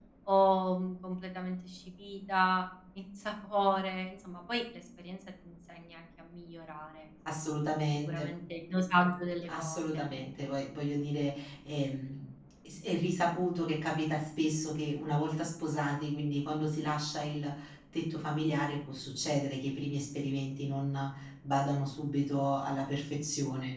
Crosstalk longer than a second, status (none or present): none